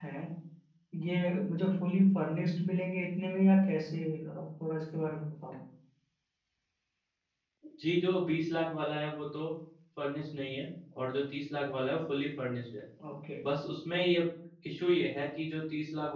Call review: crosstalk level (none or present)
none